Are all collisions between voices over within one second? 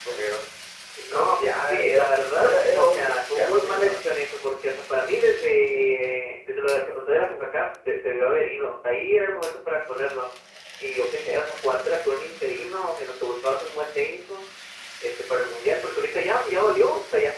No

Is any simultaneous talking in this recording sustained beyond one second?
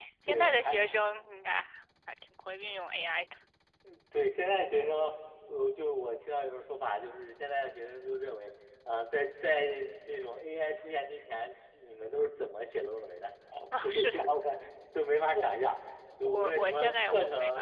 Yes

